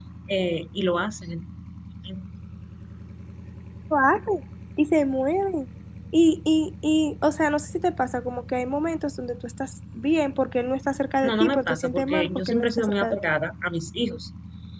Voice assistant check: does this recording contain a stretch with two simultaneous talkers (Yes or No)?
Yes